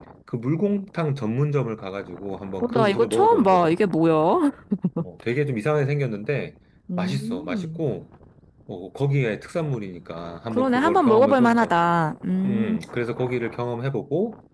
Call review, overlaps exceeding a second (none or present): present